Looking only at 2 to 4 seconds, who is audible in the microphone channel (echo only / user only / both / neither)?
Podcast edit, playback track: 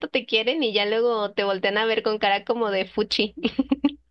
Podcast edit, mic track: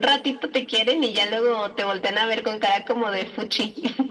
echo only